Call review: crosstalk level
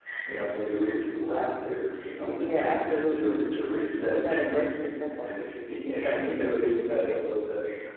present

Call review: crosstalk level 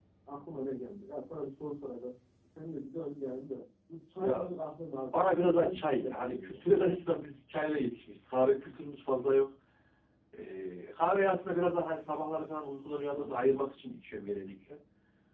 present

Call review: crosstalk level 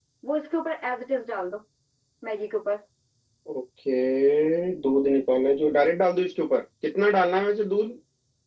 none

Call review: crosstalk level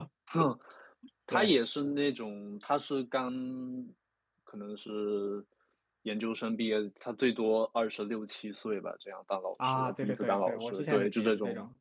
present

